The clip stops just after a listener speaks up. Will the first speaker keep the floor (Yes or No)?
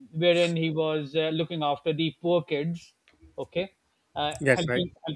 Yes